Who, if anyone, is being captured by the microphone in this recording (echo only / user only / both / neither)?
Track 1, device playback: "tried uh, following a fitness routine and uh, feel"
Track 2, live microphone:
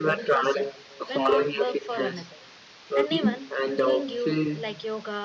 both